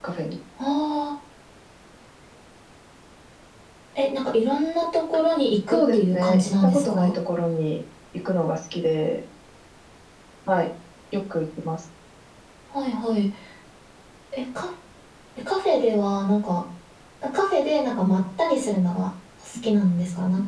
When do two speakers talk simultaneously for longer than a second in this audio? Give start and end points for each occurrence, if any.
5.7-7.1

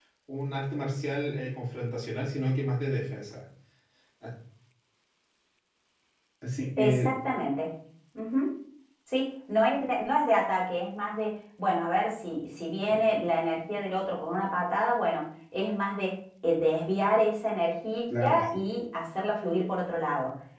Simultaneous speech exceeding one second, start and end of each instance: none

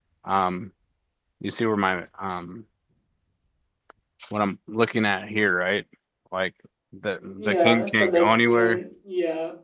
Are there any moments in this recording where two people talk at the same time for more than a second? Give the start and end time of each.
7.4-8.8

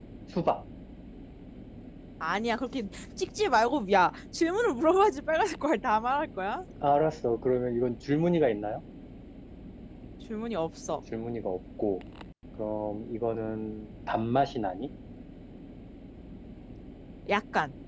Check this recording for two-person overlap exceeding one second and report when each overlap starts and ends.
none

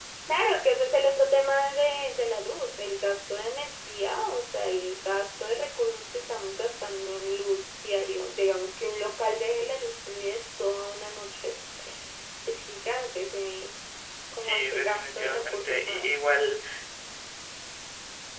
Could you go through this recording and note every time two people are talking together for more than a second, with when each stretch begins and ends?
14.4-16.2

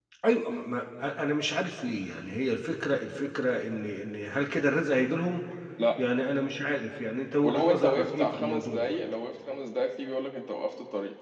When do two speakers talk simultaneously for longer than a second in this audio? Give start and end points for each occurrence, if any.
7.4-9.0

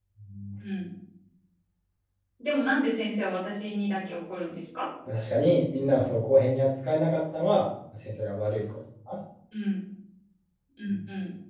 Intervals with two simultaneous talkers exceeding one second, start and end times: none

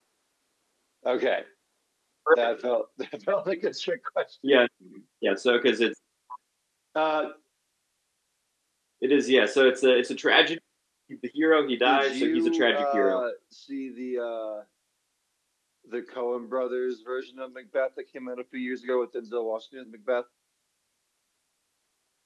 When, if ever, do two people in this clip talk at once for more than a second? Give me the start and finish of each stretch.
11.8-13.2

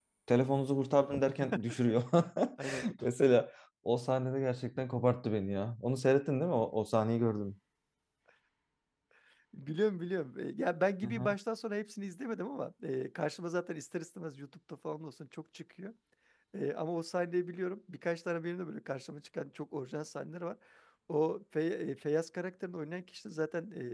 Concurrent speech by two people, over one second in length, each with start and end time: none

